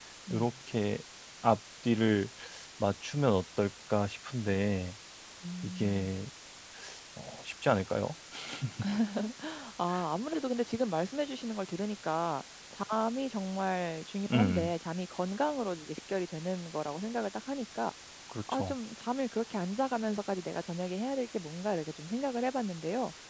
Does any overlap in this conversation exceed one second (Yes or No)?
No